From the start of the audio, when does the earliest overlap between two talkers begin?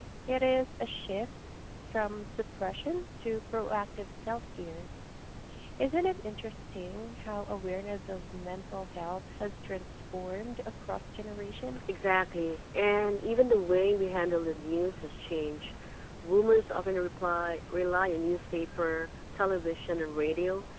none

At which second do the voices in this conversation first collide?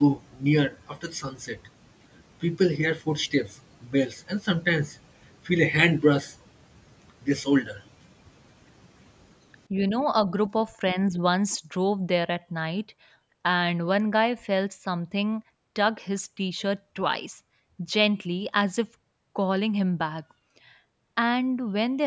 none

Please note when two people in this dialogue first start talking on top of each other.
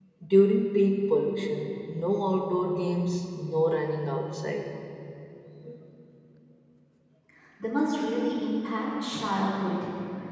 none

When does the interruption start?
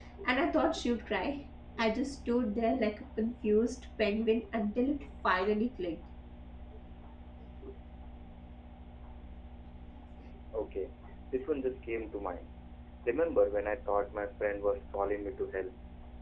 none

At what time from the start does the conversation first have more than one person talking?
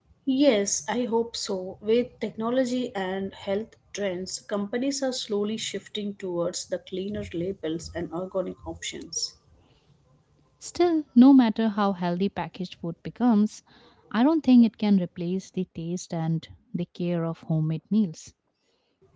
none

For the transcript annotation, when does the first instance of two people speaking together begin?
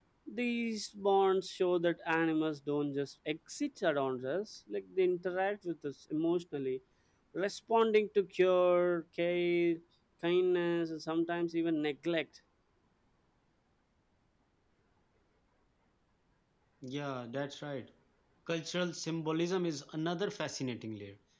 none

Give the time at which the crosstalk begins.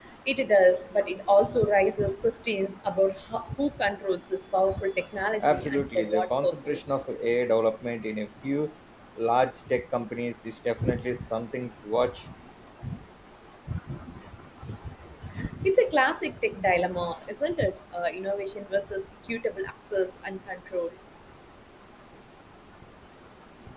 5 s

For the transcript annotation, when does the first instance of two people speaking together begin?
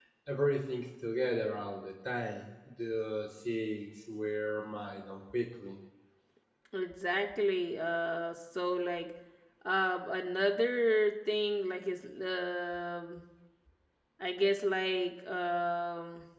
none

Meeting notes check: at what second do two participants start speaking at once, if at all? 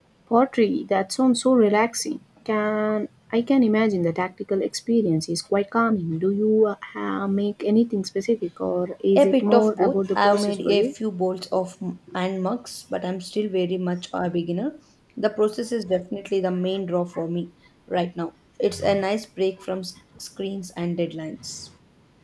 9 s

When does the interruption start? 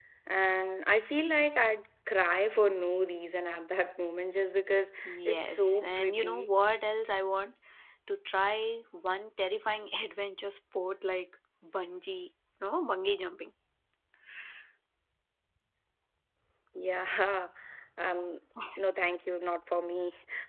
5 s

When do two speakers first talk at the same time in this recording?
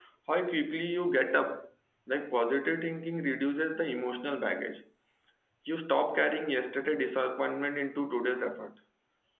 none

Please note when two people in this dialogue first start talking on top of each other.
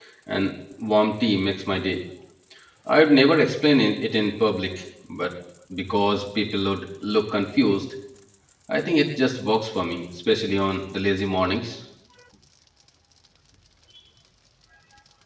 none

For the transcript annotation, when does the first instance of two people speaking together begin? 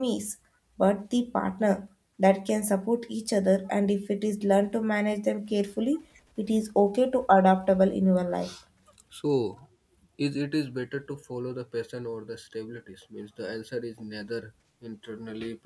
none

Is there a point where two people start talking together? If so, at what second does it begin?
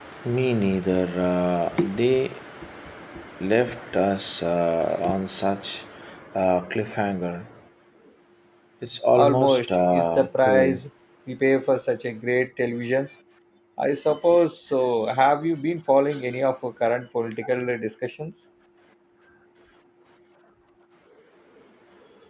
9 s

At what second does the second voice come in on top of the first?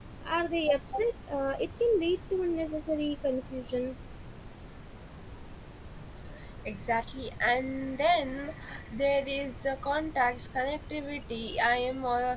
none

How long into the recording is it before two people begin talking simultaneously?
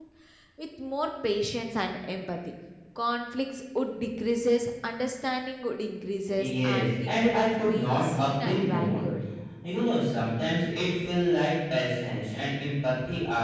6 s

